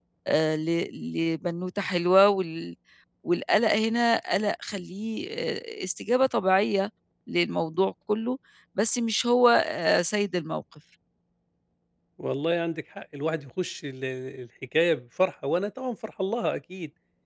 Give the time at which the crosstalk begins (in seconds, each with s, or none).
none